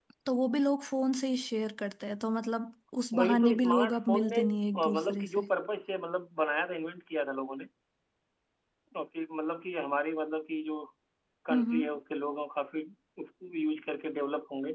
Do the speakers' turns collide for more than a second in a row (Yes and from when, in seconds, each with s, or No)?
Yes, from 3.1 s